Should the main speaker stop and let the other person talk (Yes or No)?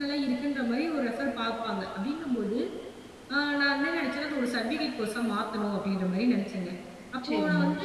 No